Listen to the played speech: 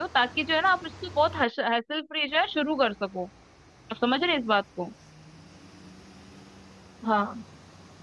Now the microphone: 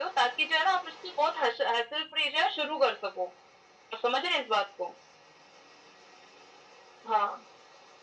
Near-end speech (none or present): none